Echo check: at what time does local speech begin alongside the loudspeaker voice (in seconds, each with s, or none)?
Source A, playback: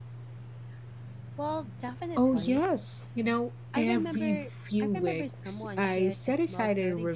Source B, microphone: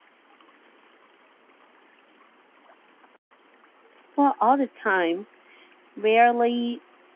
4.1 s